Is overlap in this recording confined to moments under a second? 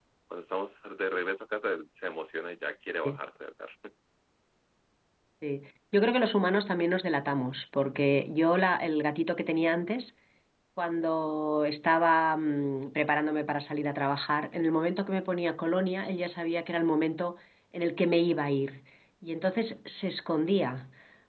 Yes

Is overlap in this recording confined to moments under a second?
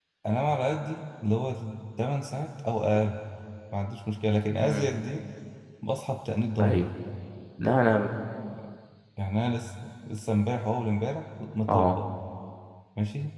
Yes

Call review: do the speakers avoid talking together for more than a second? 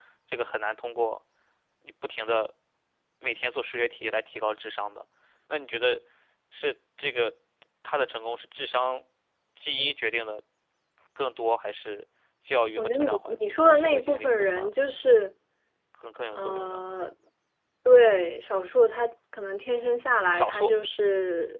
No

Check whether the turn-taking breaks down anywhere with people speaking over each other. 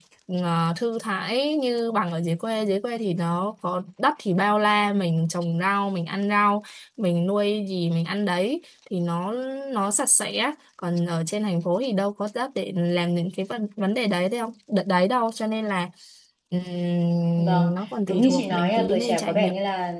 Yes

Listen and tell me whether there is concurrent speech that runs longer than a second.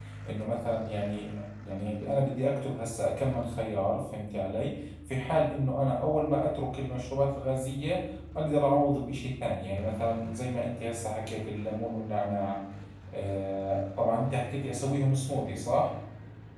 No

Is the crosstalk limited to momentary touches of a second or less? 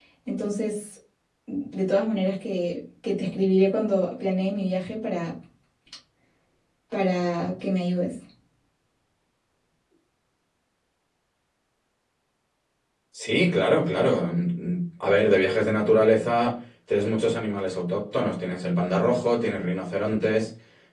Yes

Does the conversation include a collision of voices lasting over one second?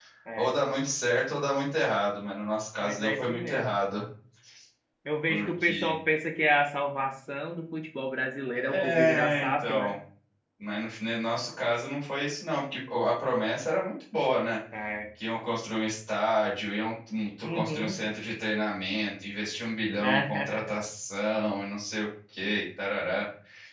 Yes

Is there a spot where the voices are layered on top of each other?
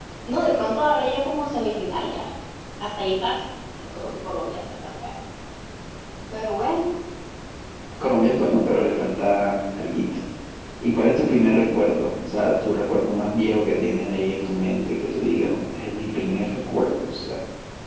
No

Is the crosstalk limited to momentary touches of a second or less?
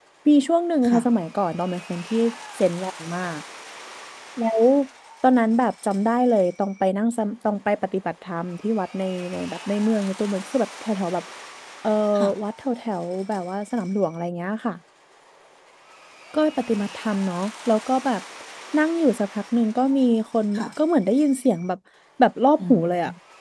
Yes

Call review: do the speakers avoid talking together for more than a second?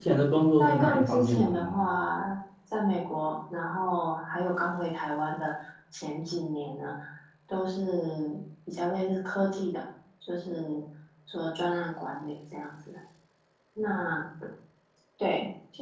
No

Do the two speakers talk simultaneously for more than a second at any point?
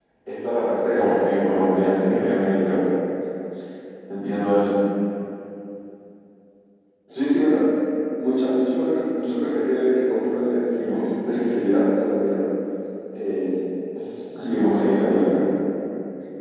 Yes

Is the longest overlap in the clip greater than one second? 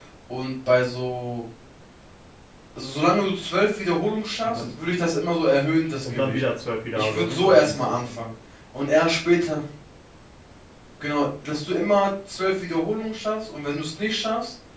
Yes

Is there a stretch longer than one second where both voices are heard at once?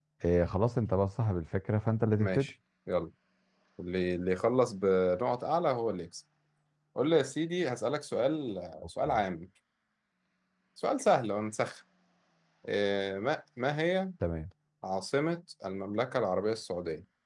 No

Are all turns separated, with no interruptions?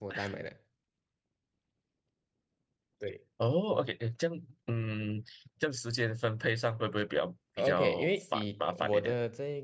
No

